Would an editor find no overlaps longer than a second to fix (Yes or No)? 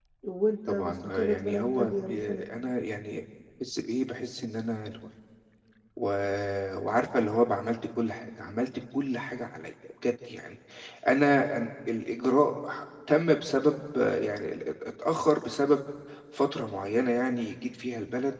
No